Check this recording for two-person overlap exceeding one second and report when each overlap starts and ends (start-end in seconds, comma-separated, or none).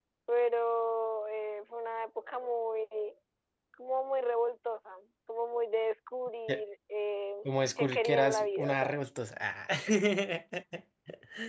7.8-9.0